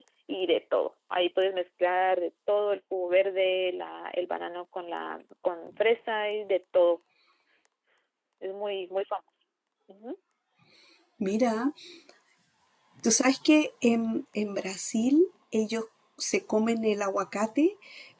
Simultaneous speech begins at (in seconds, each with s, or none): none